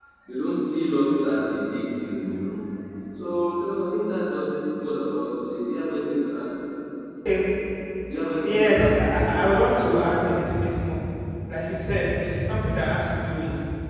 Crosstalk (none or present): present